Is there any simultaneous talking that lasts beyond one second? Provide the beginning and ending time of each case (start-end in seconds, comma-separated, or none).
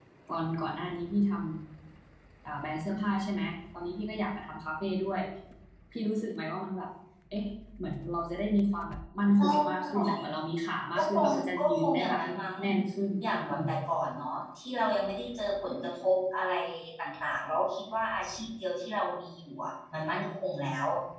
11.0-12.2